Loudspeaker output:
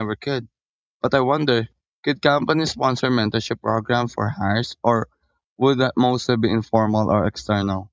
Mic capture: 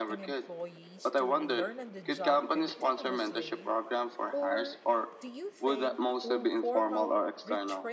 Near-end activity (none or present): present